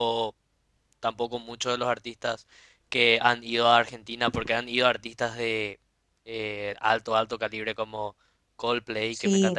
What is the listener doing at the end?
listening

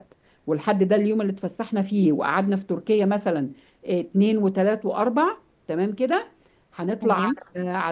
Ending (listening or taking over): listening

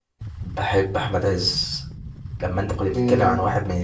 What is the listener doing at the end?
listening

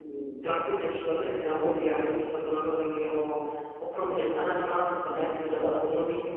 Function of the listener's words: listening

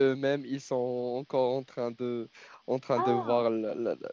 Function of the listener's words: listening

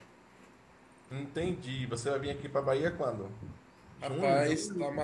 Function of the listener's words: taking over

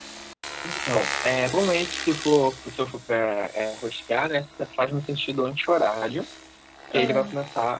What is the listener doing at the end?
listening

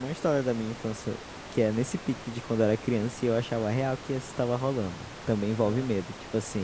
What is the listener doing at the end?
listening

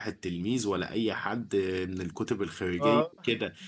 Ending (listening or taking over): listening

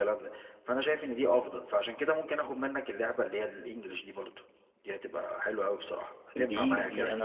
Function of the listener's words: taking over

